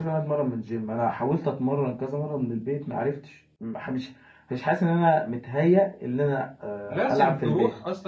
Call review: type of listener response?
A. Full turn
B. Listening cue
A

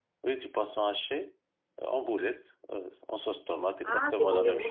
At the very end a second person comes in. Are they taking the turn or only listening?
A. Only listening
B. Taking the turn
B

